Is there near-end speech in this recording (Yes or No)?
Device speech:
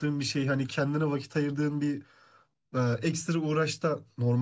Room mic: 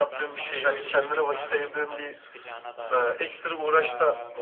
Yes